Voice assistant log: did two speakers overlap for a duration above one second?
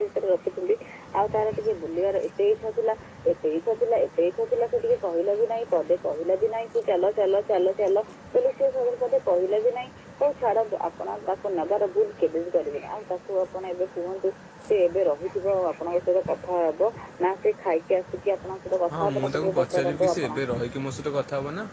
Yes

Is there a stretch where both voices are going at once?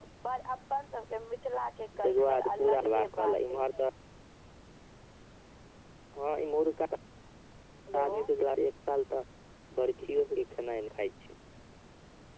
Yes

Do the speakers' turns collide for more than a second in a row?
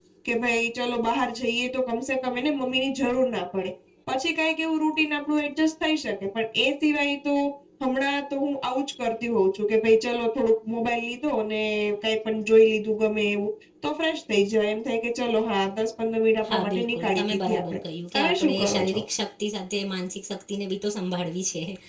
Yes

